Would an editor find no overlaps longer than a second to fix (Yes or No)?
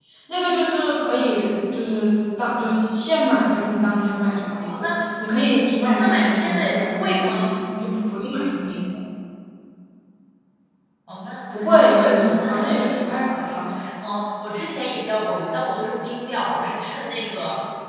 No